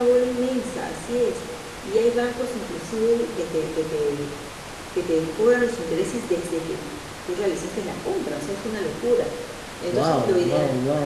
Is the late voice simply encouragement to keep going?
No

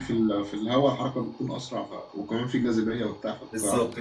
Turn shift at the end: Yes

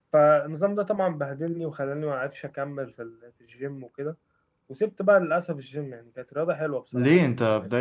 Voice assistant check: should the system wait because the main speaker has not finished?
No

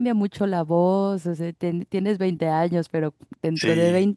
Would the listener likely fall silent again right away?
Yes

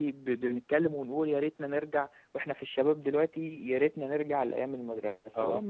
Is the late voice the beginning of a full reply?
No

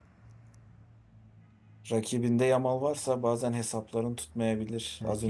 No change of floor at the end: No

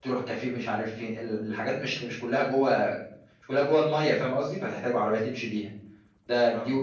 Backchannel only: Yes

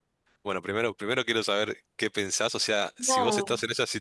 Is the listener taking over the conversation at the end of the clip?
No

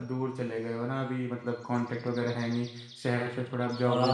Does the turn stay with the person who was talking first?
No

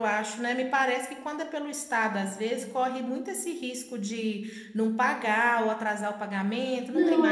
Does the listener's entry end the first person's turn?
Yes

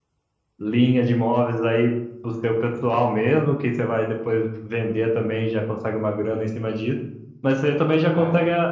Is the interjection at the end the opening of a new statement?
No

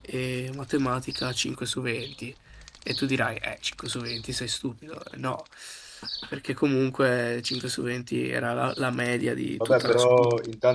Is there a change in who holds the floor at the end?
Yes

